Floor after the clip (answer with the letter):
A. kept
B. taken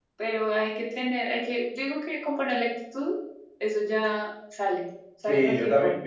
B